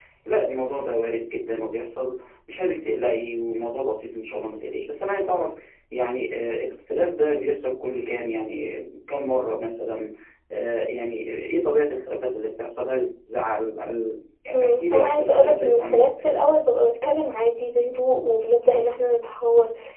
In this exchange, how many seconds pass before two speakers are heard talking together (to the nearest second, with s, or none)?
15 s